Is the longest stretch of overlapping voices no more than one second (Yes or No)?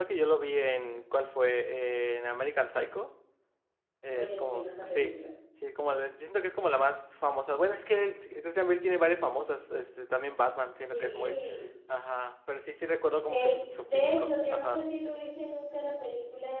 No